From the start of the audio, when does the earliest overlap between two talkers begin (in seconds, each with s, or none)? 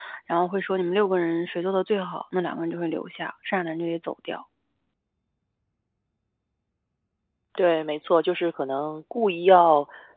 none